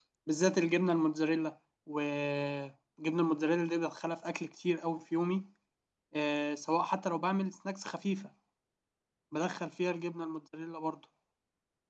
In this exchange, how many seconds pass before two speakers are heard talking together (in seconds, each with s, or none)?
none